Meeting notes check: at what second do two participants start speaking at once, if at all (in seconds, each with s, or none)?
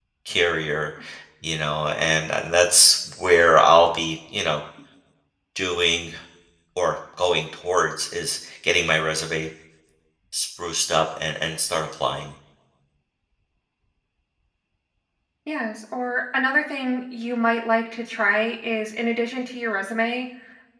none